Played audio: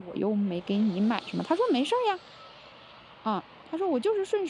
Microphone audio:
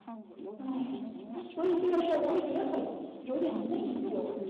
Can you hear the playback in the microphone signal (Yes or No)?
Yes